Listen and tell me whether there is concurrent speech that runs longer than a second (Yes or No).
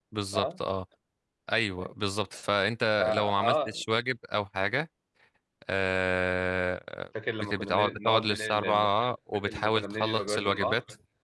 Yes